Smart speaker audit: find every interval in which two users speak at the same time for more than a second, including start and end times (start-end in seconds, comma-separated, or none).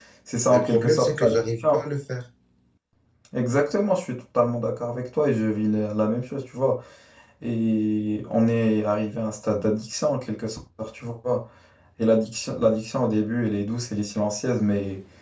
0.5-1.8